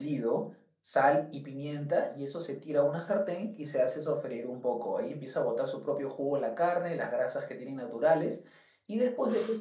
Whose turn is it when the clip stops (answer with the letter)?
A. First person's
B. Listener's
A